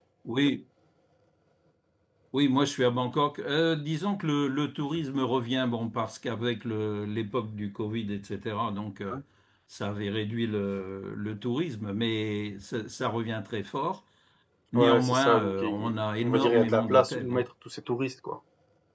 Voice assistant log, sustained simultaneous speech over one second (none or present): present